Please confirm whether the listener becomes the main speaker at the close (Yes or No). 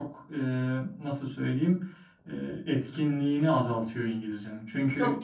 No